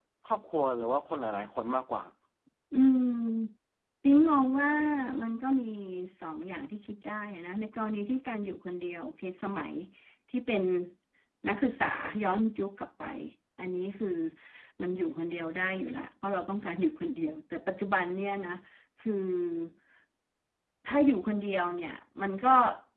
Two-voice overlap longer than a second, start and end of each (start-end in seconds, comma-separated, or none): none